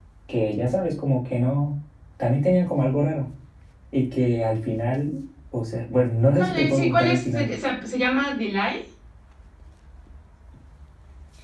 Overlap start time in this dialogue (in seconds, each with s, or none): 6.3 s